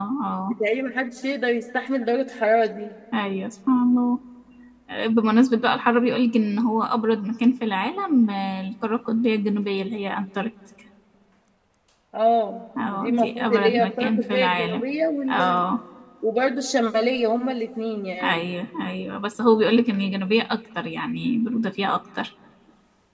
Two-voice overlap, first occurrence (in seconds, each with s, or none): 12.9 s